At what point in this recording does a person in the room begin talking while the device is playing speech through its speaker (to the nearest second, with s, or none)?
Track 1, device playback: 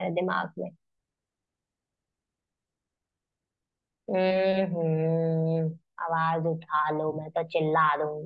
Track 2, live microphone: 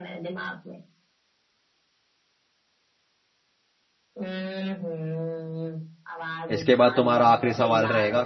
7 s